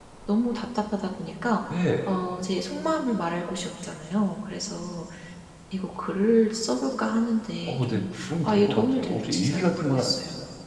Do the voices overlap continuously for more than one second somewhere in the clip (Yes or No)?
Yes